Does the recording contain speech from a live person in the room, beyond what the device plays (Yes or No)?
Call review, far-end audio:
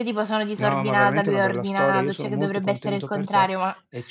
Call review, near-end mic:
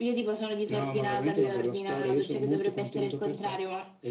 No